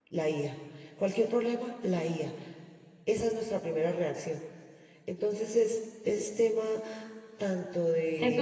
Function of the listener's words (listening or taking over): taking over